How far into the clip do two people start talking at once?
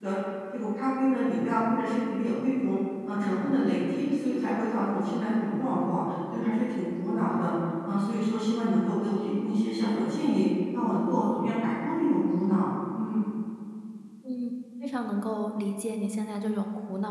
none

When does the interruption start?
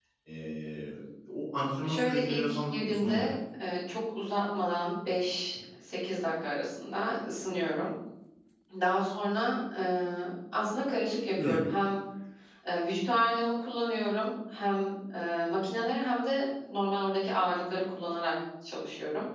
1.8 s

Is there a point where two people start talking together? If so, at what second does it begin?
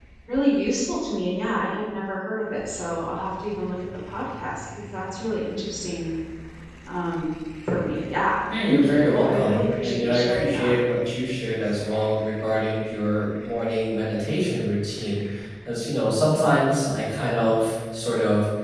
8.5 s

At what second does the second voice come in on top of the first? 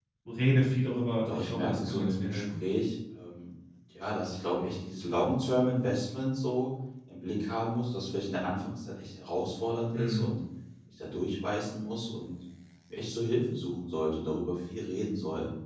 1.2 s

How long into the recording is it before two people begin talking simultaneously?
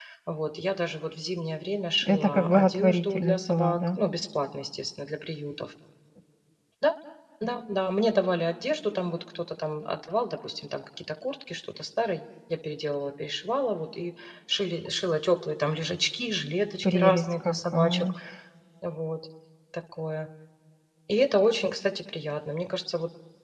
2.0 s

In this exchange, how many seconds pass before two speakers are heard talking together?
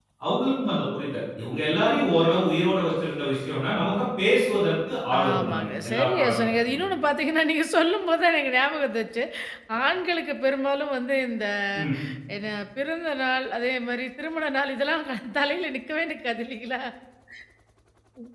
5.1 s

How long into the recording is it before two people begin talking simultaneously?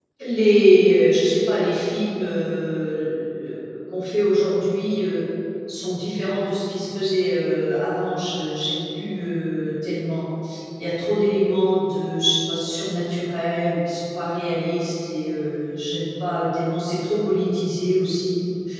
none

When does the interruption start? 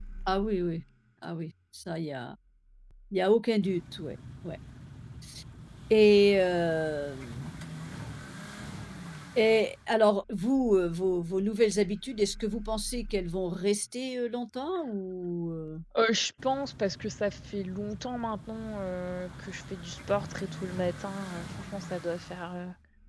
none

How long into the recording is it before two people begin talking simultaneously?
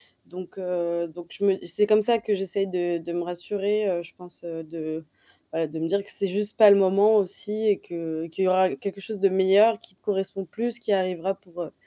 none

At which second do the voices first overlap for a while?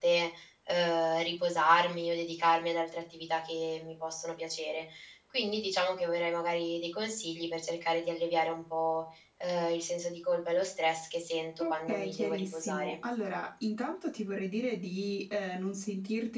11.6 s

